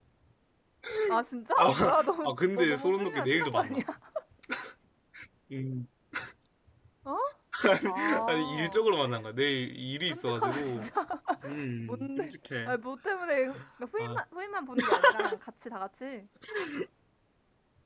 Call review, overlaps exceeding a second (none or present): present